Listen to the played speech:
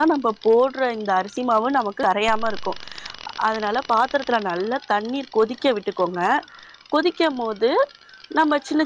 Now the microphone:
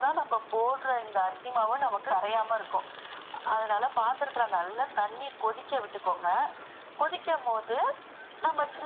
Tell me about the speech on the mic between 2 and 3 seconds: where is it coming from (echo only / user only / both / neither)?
echo only